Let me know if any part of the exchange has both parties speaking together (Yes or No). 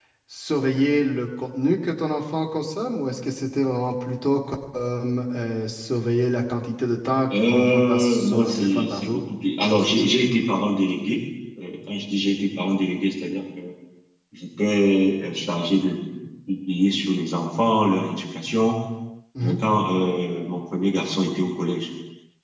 Yes